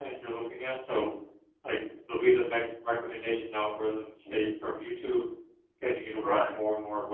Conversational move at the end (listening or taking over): listening